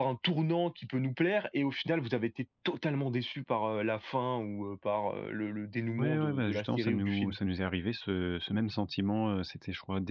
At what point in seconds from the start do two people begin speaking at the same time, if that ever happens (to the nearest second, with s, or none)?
6 s